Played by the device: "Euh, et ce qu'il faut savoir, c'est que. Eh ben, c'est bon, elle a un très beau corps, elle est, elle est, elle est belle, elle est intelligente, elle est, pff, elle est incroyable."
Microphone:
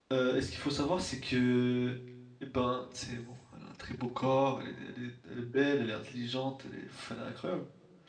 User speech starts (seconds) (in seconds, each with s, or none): none